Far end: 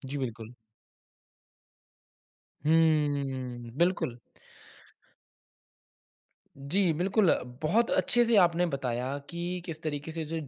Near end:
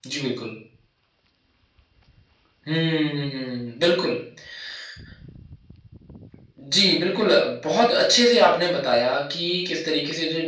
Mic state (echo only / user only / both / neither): echo only